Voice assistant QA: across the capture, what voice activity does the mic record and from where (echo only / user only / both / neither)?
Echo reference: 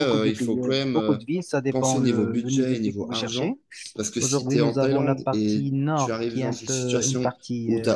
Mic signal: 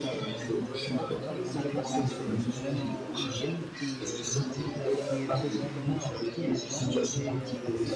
both